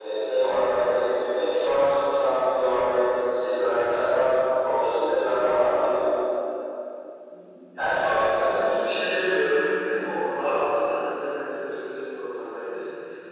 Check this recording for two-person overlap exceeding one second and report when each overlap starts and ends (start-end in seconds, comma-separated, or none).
7.8-9.0